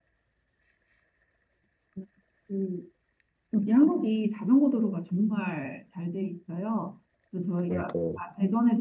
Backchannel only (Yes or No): Yes